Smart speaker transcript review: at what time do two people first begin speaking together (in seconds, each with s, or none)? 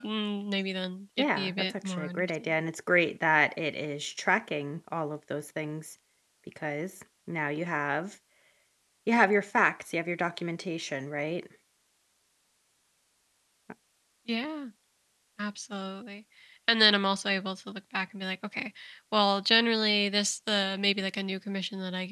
1.2 s